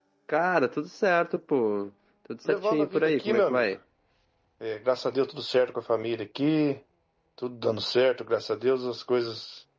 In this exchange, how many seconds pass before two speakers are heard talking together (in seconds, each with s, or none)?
2.5 s